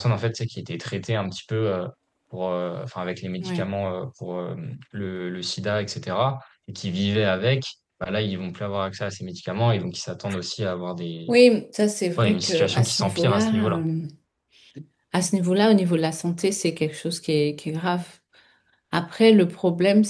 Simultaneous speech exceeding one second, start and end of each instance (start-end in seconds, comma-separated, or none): 12.2-13.8